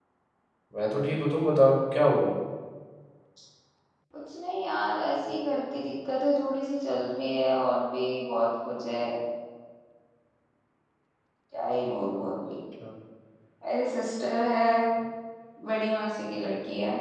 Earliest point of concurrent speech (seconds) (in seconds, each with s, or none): none